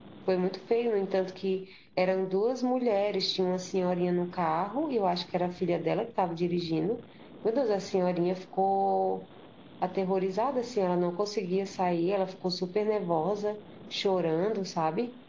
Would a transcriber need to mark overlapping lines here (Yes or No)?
No